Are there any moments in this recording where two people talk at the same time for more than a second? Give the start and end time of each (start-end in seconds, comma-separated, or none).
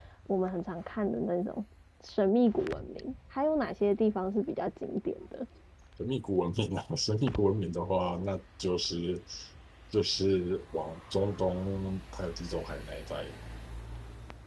none